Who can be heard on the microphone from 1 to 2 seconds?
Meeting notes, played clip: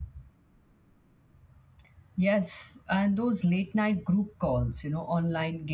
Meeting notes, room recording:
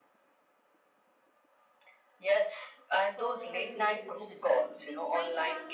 neither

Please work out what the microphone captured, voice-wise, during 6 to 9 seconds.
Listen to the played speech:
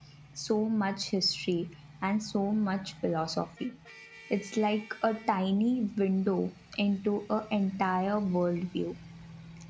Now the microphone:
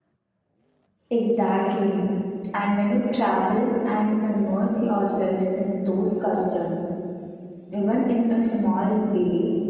user only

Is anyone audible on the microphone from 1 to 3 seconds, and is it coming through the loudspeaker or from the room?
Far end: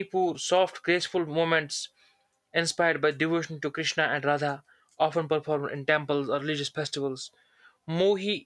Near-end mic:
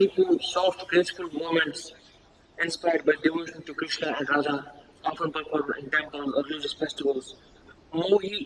echo only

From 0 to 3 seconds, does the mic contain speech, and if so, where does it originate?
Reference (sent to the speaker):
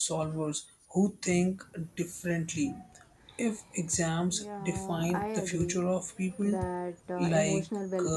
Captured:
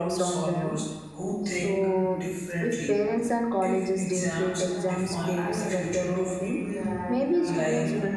both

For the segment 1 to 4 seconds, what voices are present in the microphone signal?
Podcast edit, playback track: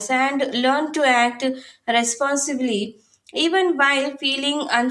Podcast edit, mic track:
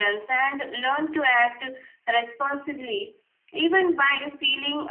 echo only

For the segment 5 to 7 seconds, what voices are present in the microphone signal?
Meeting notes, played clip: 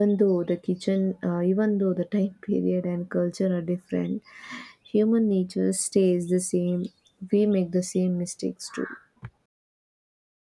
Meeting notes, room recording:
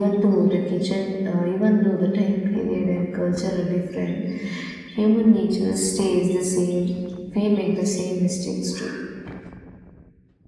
echo only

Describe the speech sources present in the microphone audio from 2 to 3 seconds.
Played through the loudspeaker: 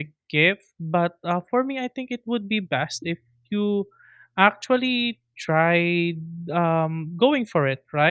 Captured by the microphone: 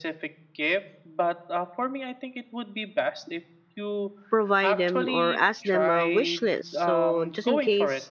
echo only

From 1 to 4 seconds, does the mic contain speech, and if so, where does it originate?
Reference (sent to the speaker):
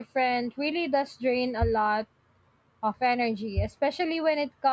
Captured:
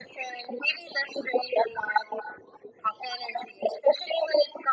echo only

